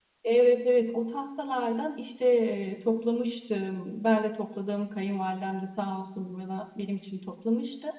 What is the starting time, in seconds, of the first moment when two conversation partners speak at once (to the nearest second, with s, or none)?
none